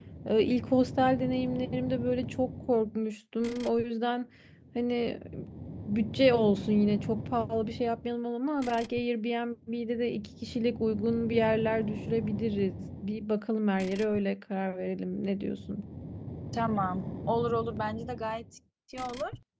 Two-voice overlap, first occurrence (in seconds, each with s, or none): none